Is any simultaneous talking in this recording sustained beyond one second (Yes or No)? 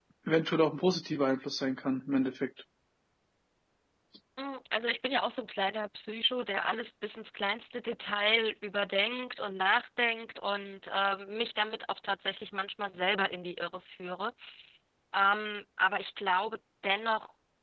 No